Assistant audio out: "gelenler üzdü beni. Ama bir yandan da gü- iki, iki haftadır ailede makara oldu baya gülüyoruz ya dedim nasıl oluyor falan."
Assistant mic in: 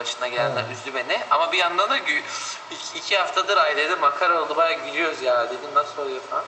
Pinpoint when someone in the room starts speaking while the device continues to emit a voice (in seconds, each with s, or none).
0.4 s